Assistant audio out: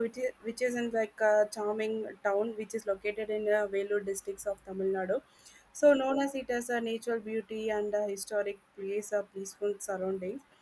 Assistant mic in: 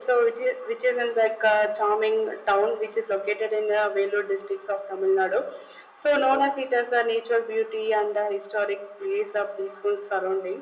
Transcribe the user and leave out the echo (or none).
none